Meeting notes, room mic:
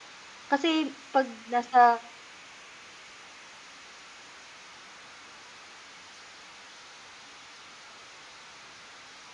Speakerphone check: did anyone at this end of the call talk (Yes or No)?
Yes